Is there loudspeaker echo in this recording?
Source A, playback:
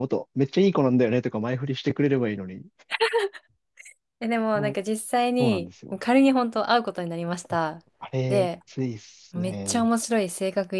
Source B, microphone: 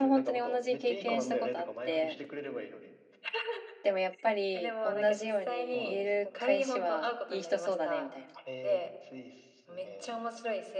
Yes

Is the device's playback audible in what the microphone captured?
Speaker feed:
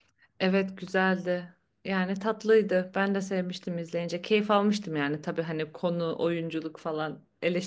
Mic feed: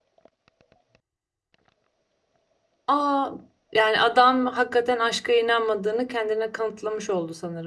No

